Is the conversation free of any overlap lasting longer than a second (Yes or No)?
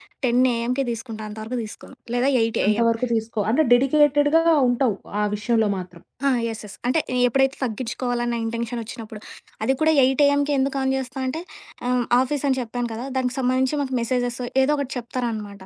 Yes